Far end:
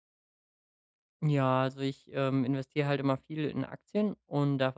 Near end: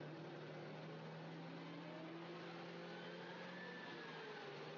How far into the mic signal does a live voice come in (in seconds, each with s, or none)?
none